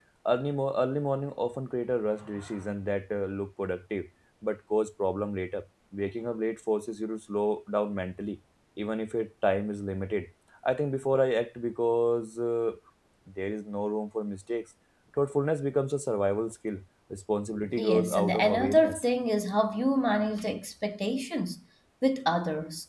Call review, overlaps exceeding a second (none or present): present